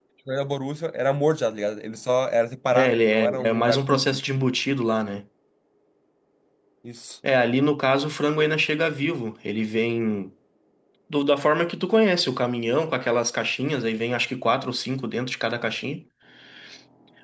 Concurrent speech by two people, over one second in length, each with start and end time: 2.7-4.0

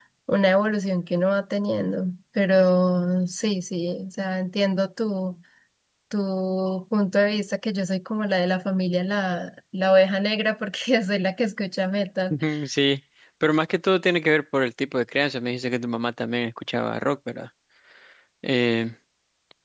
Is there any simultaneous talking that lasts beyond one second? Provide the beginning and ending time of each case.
none

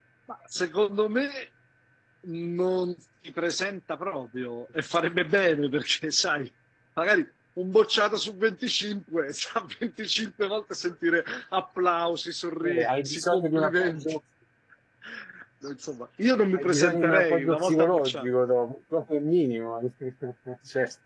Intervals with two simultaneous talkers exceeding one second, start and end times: 12.7-14.0, 16.6-18.3

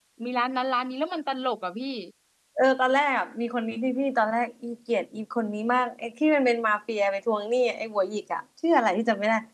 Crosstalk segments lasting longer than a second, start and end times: none

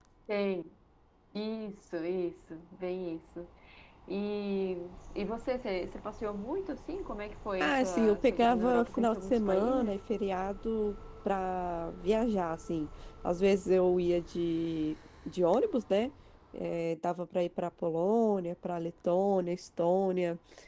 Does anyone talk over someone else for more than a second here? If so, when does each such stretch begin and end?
7.6-10.0

